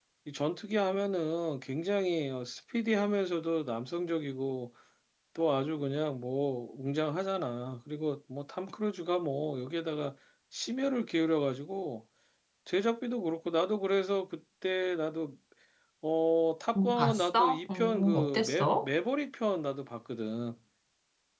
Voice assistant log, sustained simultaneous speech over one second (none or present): present